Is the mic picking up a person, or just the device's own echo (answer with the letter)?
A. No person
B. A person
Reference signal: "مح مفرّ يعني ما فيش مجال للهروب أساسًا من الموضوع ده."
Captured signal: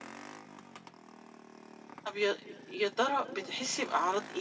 B